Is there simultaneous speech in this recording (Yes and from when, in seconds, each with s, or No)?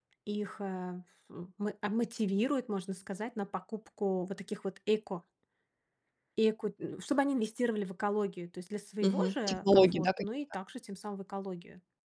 Yes, from 9.0 s